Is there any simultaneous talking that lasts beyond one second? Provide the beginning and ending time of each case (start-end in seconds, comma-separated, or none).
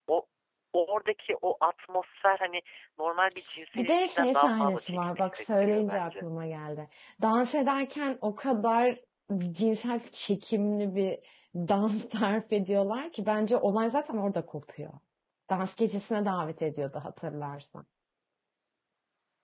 3.8-6.2